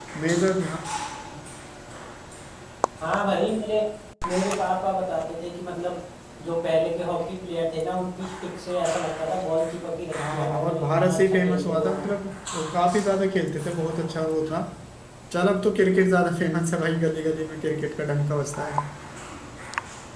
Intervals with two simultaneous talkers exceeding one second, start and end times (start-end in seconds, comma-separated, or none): 10.3-12.0